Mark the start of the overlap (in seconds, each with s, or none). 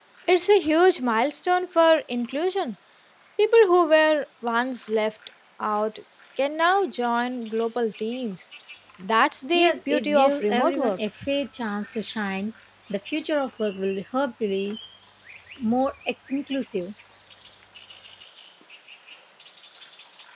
9.5 s